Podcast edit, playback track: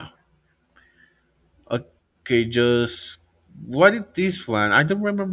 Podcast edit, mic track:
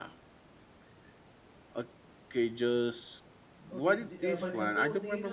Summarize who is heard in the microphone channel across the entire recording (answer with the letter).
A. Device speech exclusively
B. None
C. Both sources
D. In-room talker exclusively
C